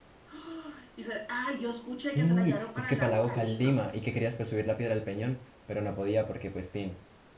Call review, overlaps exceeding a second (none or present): present